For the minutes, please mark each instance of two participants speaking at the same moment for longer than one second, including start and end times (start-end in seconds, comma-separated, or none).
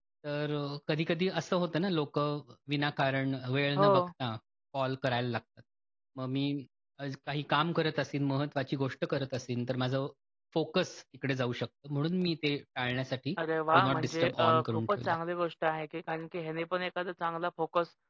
13.7-15.2